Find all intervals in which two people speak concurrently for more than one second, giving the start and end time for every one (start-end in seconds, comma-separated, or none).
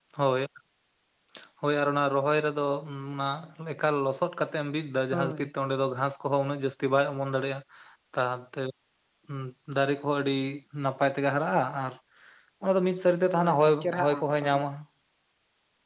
13.4-14.6